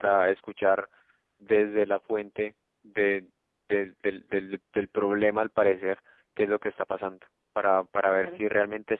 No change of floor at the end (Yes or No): Yes